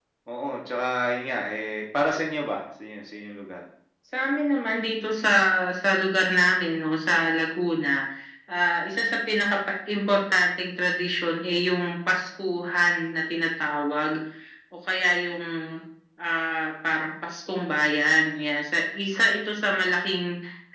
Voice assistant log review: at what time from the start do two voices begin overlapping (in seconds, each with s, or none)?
none